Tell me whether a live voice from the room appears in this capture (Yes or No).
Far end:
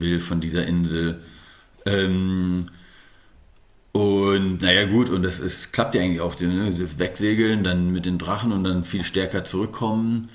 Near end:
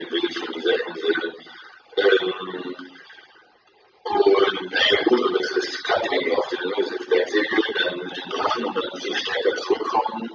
No